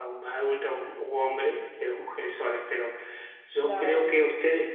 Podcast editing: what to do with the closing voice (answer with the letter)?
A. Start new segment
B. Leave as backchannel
B